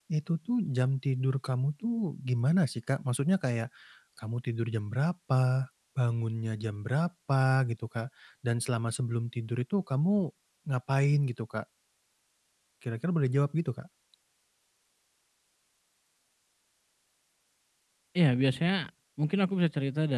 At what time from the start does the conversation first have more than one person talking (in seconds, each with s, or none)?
none